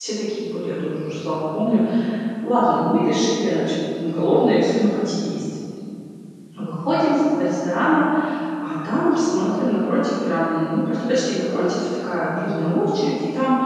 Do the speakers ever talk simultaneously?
No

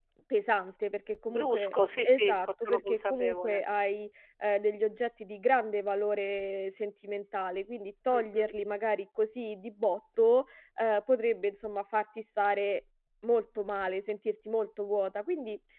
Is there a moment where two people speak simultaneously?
Yes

